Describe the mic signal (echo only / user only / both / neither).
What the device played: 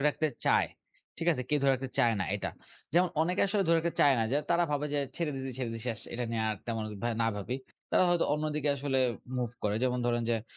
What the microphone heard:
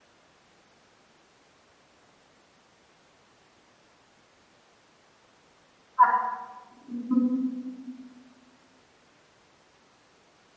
user only